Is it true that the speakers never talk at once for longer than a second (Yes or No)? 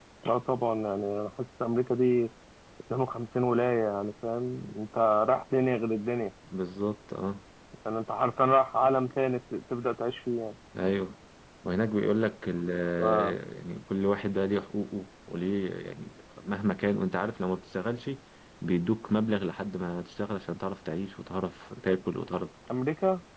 Yes